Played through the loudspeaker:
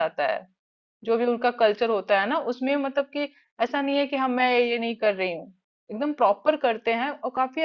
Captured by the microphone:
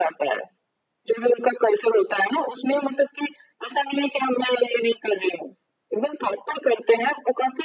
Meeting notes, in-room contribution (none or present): none